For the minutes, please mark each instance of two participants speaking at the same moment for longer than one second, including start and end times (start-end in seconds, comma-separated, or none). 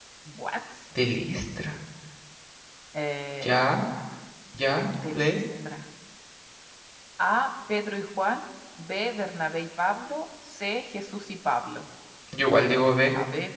none